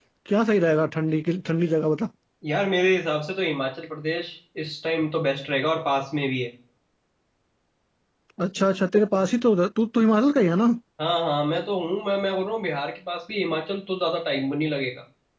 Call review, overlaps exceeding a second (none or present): none